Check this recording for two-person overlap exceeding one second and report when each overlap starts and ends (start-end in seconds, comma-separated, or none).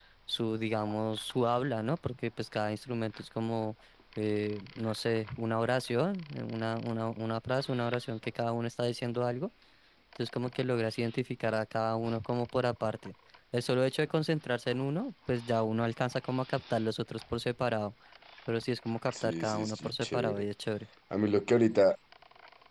19.2-20.4